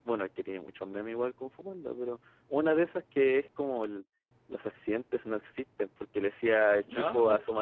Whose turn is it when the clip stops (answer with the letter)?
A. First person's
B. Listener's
A